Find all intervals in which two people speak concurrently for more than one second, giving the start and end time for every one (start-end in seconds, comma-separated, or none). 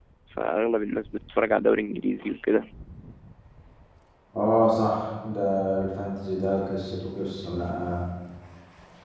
none